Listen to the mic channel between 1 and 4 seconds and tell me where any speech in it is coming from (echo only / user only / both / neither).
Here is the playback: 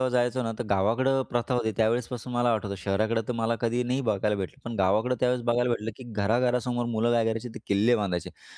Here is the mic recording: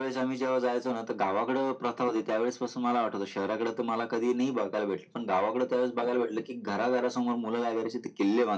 echo only